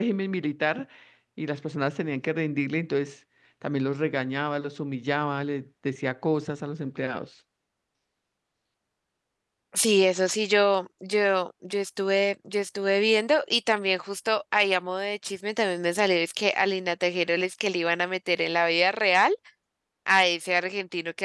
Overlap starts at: none

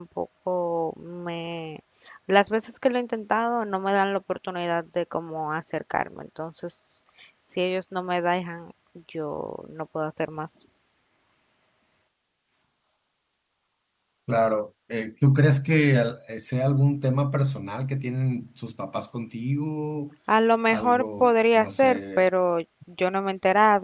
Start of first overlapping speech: 20.7 s

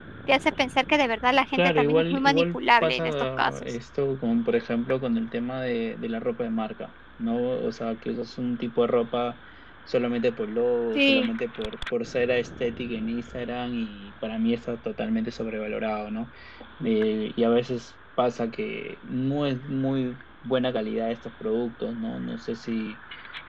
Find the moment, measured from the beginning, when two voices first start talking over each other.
1.5 s

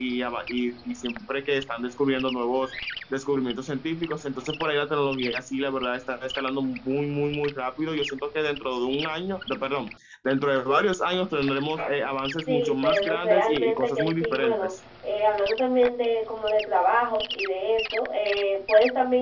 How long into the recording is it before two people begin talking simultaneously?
12.5 s

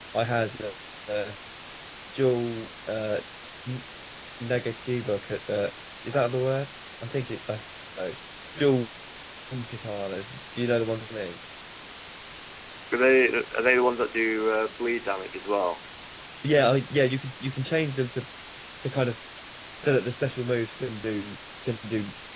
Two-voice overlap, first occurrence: none

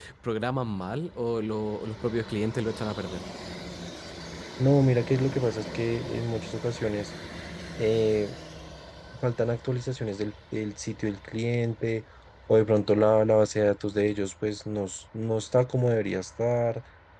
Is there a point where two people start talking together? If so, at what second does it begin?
none

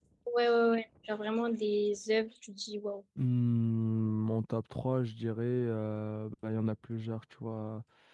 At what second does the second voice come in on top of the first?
none

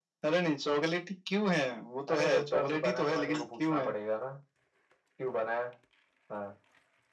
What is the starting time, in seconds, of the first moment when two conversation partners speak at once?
2.1 s

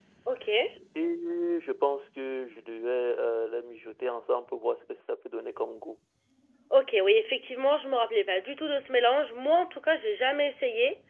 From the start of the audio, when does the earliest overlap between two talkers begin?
none

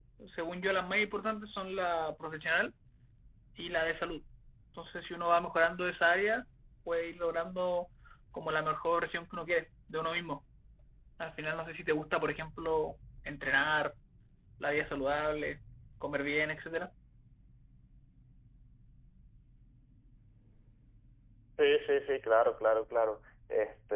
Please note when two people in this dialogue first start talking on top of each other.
none

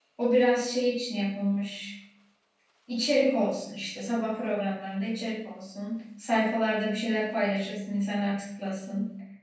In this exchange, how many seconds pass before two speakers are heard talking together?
none

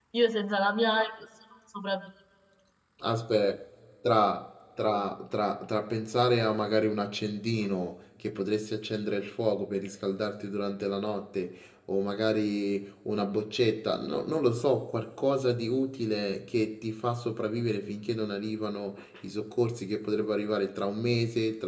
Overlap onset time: none

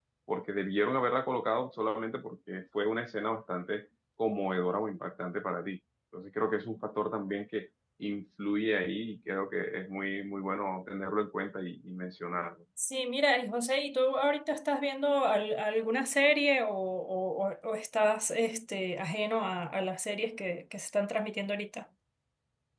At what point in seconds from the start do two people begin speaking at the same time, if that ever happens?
none

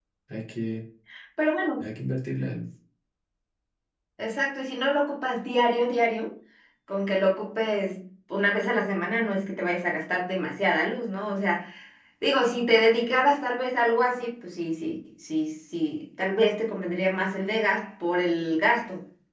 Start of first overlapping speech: none

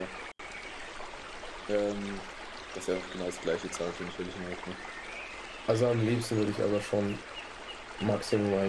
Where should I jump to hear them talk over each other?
none

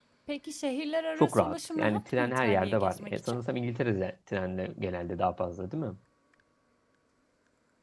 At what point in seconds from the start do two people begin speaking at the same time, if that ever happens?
1.2 s

